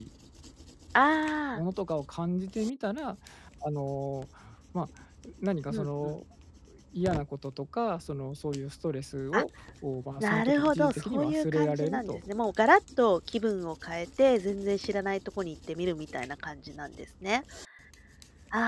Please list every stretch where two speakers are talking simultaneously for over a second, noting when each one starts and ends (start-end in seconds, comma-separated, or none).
10.2-12.2